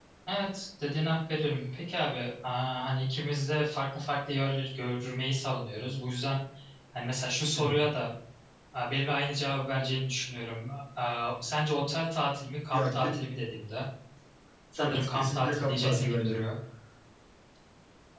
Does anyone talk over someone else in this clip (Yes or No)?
Yes